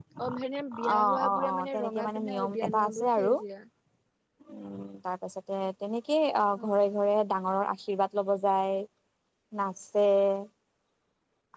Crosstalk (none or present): present